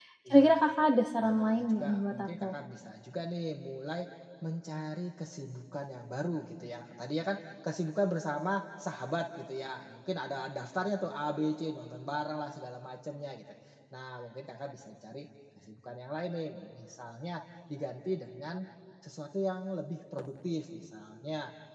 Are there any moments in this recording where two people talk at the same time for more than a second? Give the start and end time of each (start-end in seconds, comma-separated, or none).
1.2-2.5